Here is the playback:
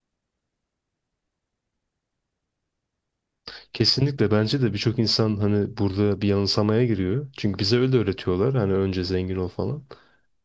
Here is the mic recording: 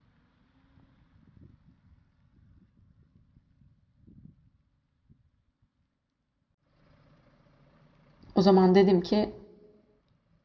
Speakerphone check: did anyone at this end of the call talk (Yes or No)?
Yes